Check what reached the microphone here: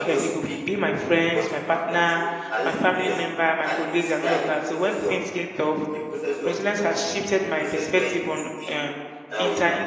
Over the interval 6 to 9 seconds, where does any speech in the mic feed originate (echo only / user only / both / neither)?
both